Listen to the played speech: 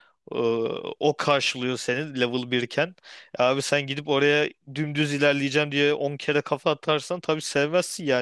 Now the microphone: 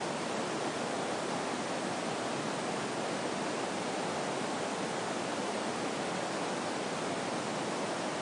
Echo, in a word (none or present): none